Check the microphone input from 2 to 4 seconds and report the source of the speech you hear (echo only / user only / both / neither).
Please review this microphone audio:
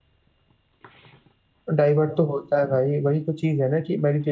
user only